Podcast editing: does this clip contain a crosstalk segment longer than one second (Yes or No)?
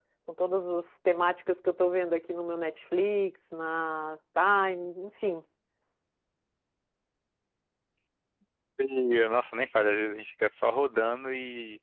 No